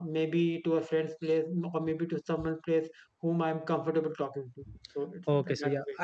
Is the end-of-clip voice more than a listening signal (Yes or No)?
Yes